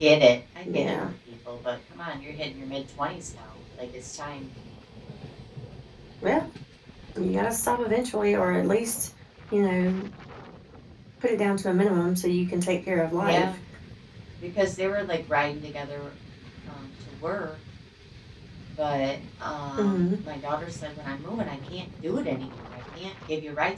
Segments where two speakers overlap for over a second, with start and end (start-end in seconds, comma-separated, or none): none